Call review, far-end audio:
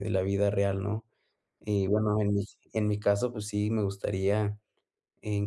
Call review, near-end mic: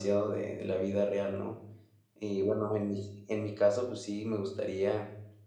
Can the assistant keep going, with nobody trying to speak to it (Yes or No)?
Yes